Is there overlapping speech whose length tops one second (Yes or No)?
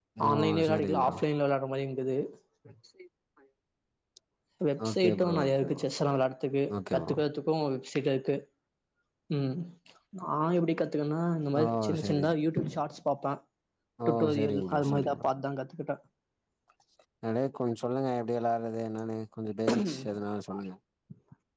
Yes